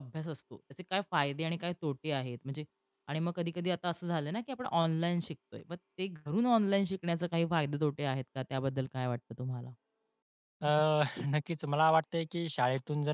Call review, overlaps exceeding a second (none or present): none